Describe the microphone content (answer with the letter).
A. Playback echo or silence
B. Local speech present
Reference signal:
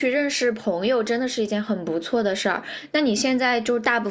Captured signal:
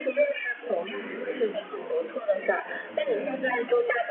B